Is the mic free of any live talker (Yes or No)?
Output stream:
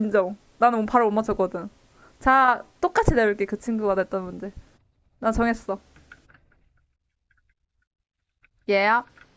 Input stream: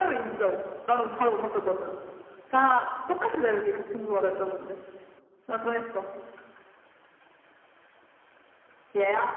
Yes